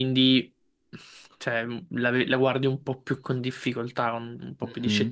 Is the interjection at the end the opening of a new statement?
Yes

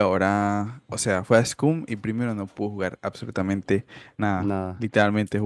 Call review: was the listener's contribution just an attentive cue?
Yes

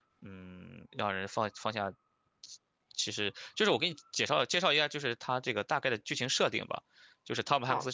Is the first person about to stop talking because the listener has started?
Yes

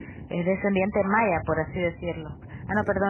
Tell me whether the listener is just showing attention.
Yes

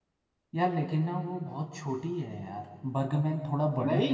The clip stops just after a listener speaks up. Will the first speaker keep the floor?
No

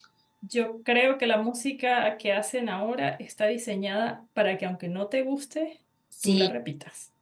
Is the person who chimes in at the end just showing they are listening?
No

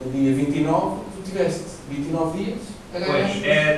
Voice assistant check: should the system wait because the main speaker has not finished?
No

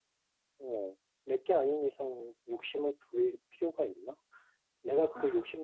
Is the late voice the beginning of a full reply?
No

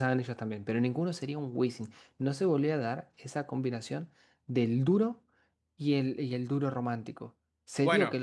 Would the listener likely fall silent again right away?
Yes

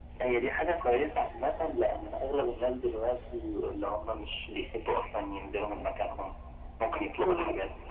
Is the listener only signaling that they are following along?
Yes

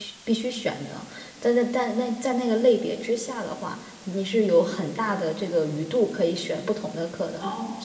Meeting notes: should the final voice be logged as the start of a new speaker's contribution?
No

